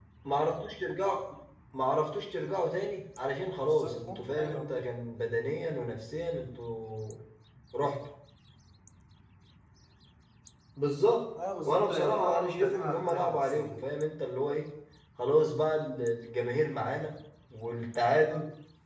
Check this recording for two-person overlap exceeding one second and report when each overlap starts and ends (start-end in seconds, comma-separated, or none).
3.6-4.9, 11.6-13.8